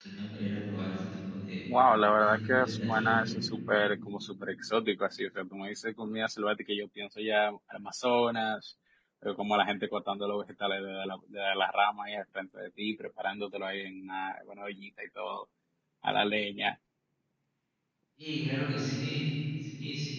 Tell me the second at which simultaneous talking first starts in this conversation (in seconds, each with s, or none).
2.2 s